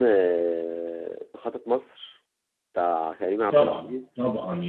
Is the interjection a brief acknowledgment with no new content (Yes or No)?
No